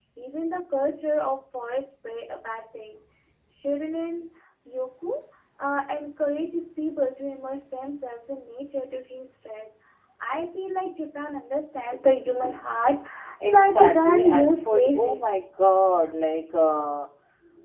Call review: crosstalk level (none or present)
present